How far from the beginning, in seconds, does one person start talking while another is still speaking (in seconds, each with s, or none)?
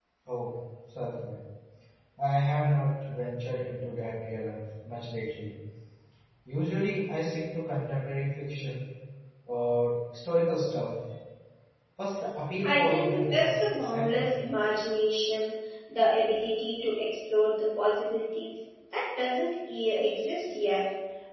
12.6 s